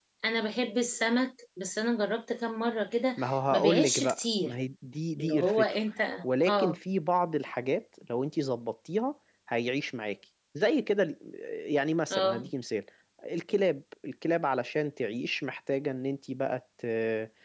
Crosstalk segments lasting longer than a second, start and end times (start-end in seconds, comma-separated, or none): 3.2-4.5